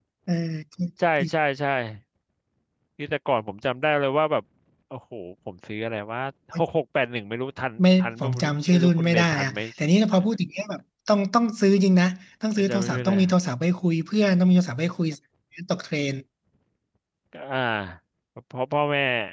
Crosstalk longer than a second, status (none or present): present